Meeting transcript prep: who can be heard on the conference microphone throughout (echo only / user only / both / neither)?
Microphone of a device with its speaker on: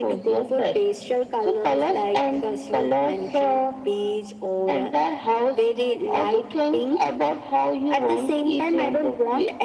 echo only